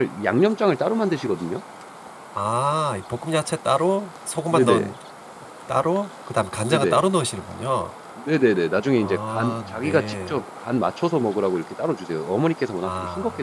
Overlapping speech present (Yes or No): Yes